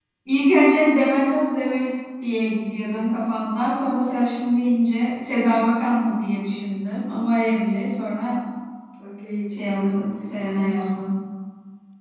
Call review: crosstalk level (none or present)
present